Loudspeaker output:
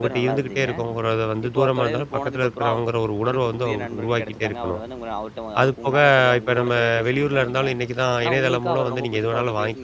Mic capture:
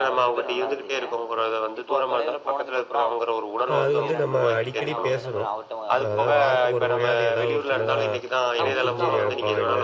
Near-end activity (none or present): present